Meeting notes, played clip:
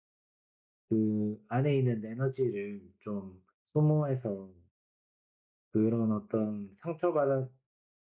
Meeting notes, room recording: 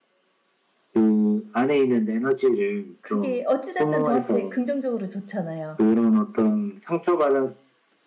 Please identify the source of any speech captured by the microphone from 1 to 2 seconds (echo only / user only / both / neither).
echo only